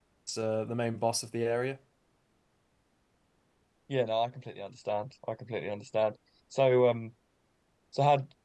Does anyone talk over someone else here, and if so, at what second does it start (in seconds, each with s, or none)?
none